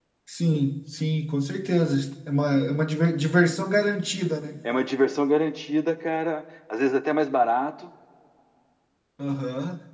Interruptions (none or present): none